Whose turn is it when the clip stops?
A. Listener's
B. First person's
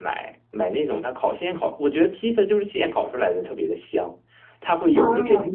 B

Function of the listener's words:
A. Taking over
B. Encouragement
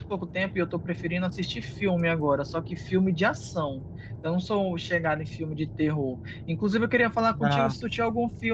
B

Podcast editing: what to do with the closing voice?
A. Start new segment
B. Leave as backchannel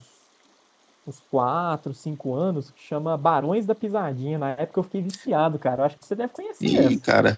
A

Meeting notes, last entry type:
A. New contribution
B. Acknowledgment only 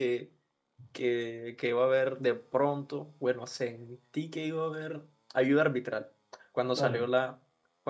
B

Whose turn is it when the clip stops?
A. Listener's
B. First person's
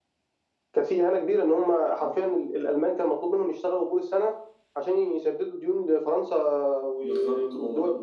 A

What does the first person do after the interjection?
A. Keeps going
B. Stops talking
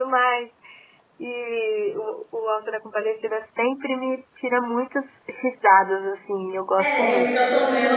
B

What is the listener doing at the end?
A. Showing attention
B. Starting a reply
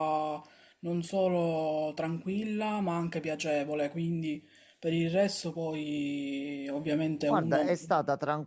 B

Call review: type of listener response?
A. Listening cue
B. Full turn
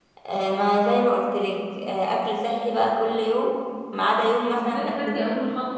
B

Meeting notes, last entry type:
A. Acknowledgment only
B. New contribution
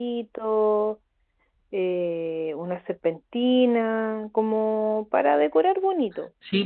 B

